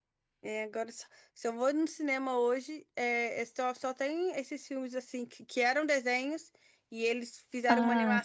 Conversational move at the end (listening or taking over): listening